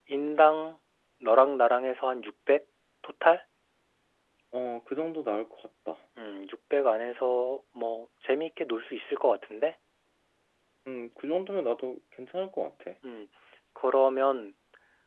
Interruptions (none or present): none